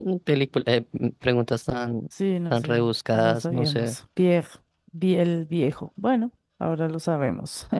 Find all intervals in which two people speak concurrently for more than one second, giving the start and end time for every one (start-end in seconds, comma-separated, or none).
2.5-4.0